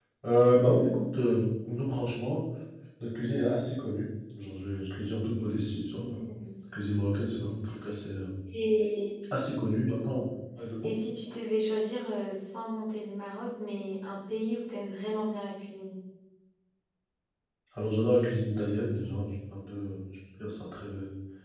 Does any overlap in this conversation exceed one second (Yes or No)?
No